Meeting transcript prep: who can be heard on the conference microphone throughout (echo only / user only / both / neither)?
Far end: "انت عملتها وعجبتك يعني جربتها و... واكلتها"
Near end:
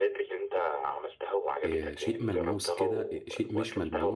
both